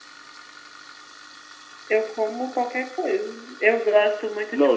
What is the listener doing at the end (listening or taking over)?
taking over